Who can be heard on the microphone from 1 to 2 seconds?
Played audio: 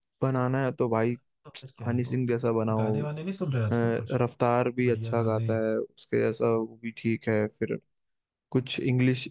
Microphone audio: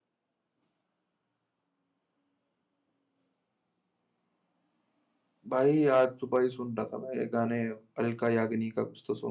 neither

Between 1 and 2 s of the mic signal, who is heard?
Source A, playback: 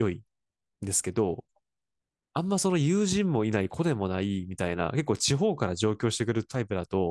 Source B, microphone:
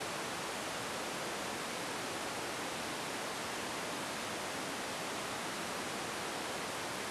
neither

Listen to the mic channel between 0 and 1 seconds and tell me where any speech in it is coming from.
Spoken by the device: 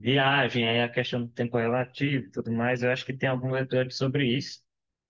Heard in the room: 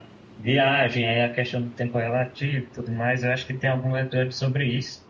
echo only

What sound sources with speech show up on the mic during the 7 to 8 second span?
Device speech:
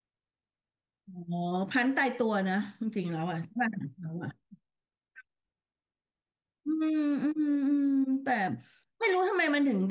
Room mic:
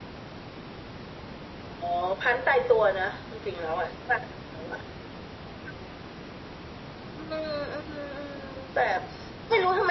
echo only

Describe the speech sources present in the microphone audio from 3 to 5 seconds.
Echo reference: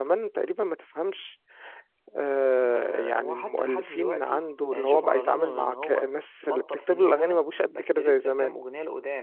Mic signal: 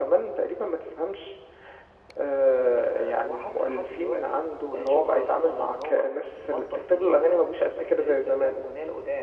echo only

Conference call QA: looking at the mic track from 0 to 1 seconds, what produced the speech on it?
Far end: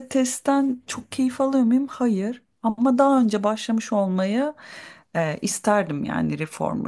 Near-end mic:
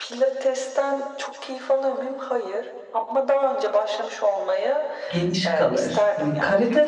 echo only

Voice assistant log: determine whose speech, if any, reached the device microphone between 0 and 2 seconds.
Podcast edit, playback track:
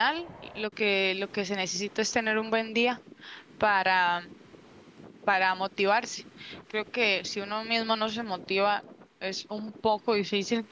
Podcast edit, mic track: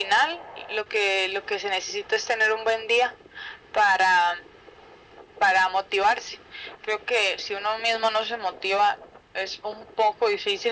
echo only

